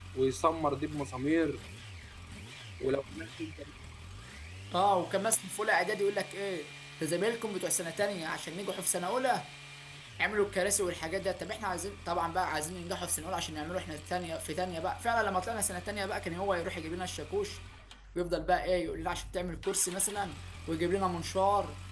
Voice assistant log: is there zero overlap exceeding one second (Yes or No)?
Yes